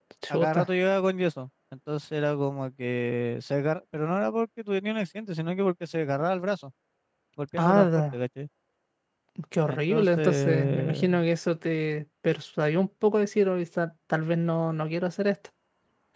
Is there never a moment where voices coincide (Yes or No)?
No